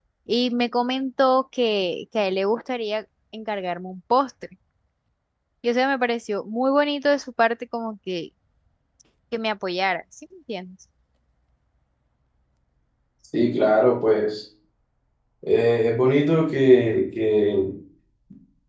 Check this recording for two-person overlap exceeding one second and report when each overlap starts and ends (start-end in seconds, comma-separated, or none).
none